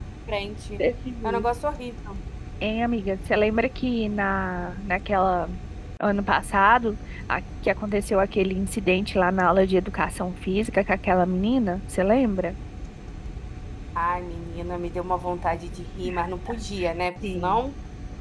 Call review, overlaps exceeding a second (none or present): none